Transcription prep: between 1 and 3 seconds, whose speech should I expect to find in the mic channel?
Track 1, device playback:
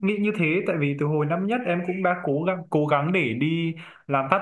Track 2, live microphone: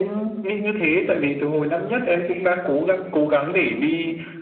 echo only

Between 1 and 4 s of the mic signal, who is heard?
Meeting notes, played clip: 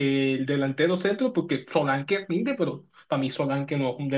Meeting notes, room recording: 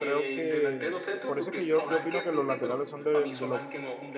both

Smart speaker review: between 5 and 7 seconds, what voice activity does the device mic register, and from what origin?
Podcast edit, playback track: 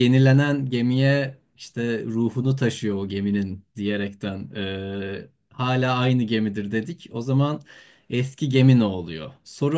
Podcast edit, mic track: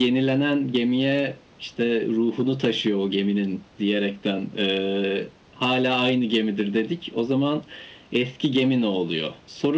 echo only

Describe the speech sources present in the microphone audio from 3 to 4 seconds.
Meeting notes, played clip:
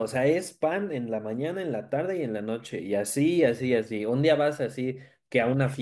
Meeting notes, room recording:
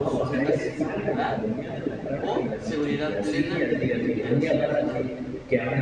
both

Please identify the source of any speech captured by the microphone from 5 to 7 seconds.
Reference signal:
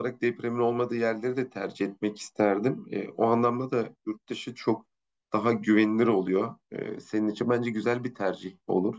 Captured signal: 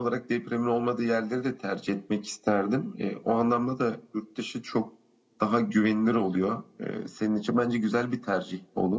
echo only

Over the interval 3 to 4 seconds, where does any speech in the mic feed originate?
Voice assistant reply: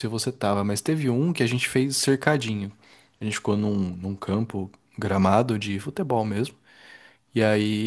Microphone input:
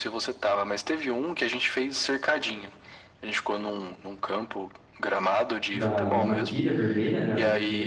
echo only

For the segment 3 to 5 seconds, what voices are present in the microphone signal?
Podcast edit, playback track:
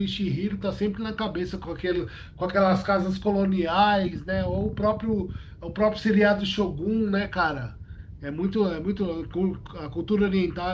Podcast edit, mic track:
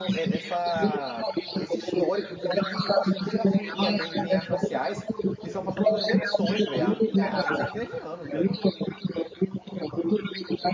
both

